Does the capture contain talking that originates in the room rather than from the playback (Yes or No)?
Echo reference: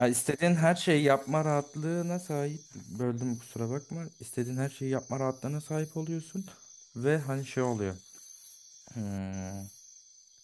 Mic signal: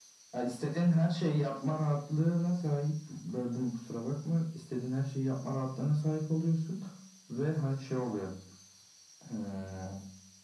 No